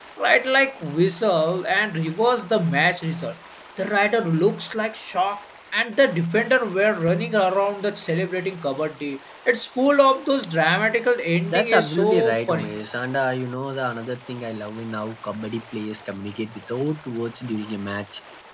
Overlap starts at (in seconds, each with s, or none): 11.5 s